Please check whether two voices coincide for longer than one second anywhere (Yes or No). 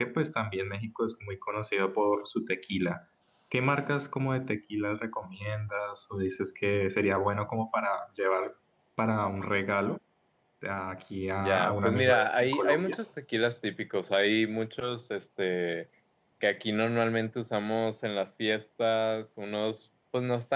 Yes